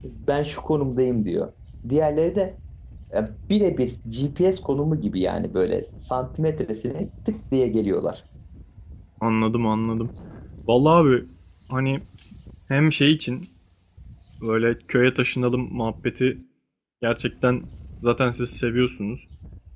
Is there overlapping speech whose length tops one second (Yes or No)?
No